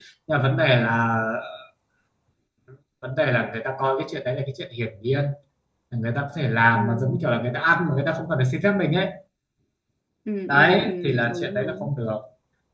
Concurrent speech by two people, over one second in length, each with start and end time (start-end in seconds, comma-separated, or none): 10.5-11.9